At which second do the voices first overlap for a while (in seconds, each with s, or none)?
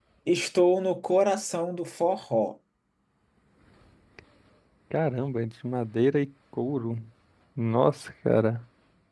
none